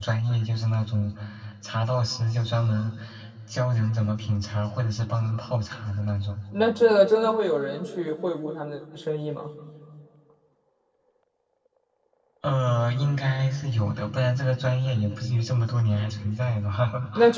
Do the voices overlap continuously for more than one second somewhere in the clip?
No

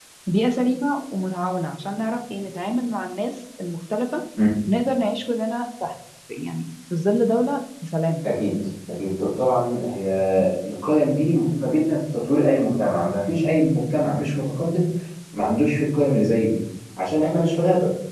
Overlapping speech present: No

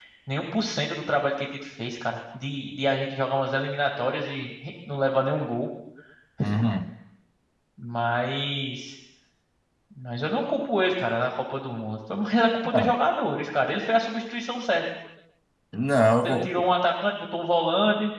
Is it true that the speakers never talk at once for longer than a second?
Yes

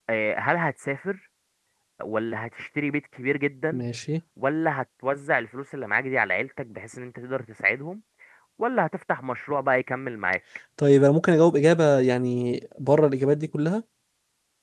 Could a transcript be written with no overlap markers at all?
Yes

